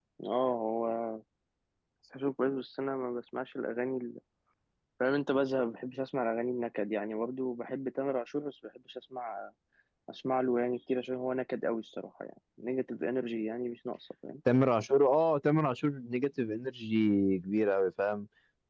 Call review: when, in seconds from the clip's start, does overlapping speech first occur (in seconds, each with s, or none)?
none